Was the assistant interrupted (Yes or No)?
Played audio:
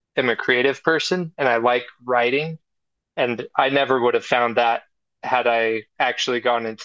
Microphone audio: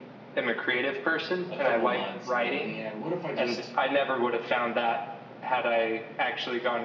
Yes